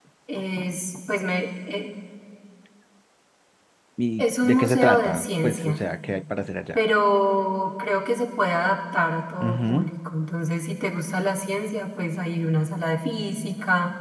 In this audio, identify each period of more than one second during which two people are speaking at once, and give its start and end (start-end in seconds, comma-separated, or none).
4.2-5.8